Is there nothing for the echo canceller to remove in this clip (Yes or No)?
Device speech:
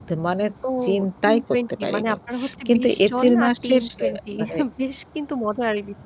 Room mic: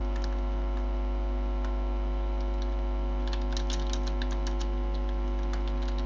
Yes